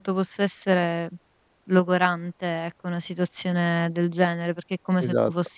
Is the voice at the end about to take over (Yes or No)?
No